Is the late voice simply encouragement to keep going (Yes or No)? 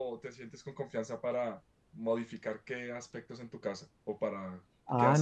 No